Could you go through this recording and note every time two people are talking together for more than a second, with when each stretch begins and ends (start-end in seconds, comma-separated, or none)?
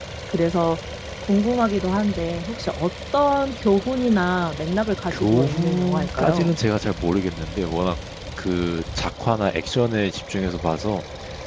5.1-6.6